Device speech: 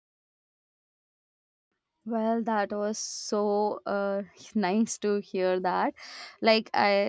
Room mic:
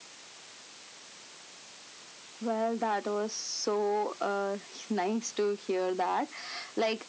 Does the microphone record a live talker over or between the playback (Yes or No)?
No